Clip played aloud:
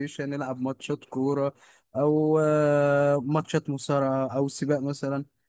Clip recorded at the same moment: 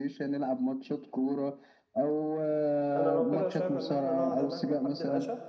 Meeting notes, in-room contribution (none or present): present